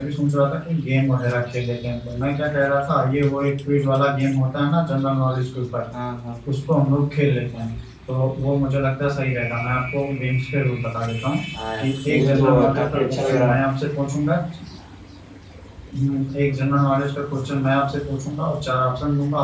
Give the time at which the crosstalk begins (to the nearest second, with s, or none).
12 s